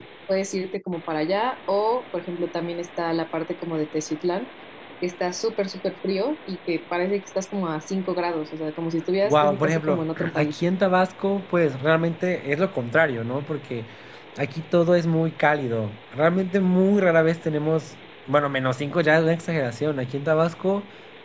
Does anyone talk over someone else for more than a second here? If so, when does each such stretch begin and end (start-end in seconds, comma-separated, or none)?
9.2-10.6